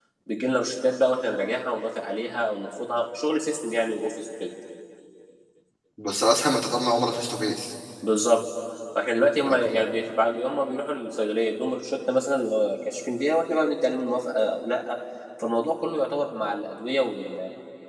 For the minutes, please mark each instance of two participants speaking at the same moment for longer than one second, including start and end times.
none

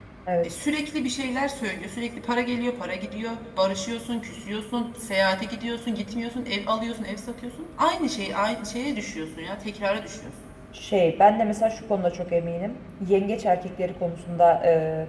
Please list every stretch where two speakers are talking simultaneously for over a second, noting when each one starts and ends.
none

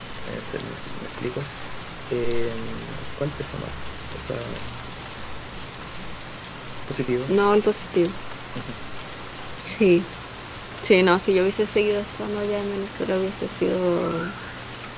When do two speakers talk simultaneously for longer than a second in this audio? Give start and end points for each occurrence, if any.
none

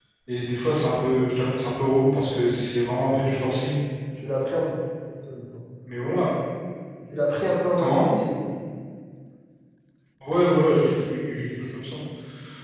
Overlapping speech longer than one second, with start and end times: none

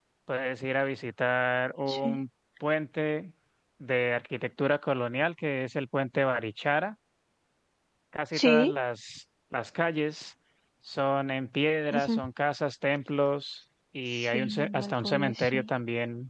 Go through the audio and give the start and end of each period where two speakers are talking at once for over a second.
14.1-15.7

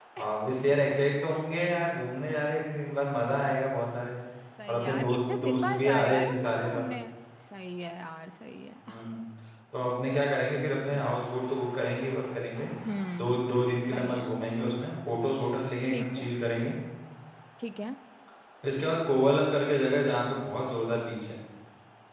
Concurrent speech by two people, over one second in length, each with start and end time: 4.7-6.8

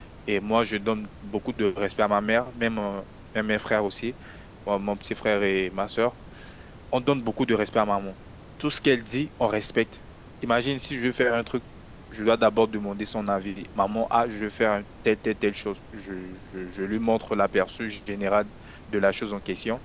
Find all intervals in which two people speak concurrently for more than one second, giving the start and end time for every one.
none

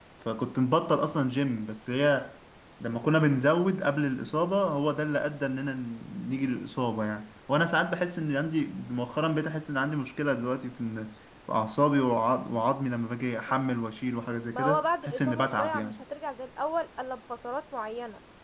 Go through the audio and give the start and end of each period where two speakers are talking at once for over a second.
14.5-15.9

